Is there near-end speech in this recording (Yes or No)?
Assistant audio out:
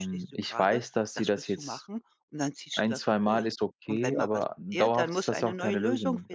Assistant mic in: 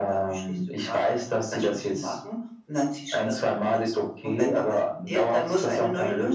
No